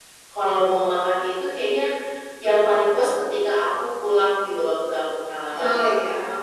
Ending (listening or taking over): taking over